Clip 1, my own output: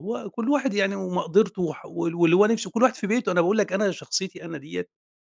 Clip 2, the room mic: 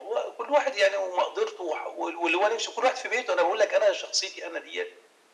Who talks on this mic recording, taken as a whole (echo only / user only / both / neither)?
echo only